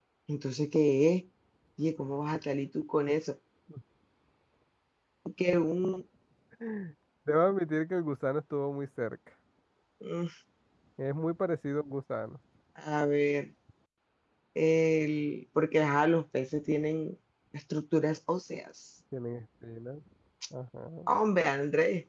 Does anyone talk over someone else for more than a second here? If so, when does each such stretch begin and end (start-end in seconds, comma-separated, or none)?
none